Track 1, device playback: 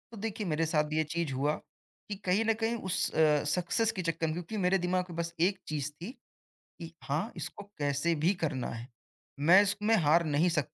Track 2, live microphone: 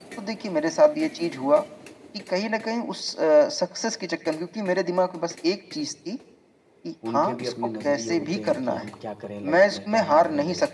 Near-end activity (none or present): present